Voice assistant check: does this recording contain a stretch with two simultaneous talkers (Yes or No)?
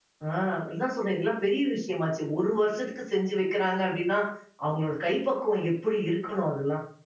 No